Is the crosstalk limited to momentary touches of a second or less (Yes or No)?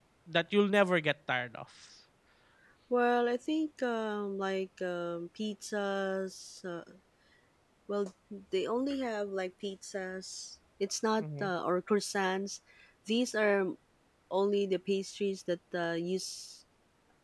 Yes